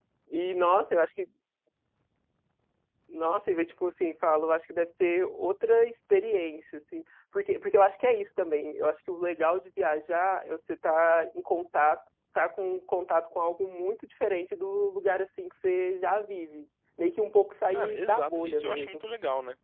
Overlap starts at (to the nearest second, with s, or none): 18 s